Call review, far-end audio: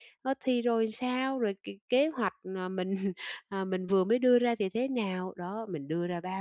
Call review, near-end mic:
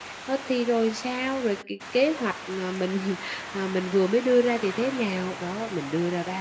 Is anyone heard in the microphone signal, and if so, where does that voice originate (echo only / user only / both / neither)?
echo only